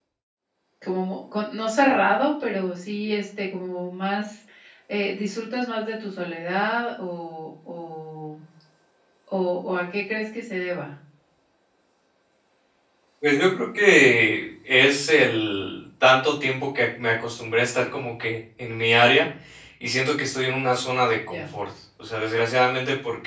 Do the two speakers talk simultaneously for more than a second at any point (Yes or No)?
No